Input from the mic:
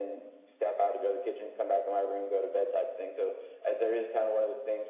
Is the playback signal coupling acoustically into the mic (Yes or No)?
Yes